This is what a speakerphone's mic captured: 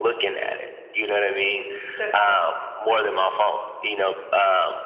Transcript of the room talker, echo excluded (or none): That's correct.